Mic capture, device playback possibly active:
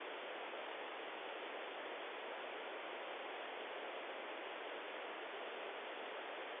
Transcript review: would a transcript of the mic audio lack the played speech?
Yes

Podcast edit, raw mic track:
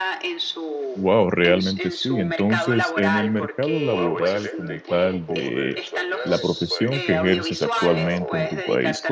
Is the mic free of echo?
No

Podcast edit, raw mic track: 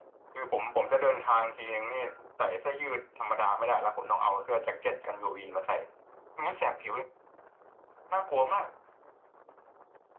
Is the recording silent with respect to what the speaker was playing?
No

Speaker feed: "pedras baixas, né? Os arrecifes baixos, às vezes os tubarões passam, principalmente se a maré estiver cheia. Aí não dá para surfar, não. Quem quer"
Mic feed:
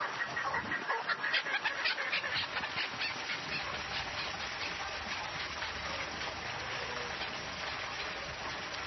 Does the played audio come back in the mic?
No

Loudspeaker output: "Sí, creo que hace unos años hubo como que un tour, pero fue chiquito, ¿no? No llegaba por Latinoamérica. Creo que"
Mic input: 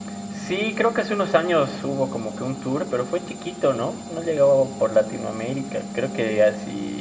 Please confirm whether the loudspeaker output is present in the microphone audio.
Yes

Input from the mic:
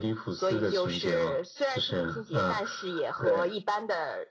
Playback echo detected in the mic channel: Yes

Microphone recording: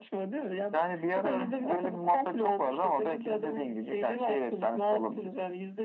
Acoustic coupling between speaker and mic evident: Yes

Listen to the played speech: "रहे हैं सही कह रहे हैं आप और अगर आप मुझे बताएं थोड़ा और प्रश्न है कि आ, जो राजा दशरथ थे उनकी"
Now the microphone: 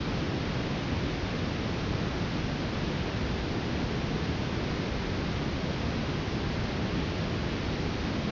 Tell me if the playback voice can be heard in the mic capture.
No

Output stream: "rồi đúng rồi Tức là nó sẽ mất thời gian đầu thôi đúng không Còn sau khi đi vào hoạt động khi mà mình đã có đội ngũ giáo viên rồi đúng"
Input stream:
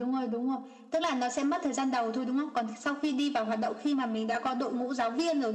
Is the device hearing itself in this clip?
Yes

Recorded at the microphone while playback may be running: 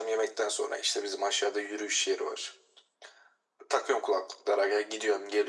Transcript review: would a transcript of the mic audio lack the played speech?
No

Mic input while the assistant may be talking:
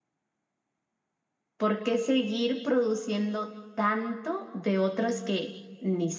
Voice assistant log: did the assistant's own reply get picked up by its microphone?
No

